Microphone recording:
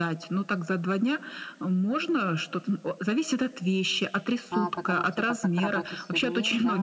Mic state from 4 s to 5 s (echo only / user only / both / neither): both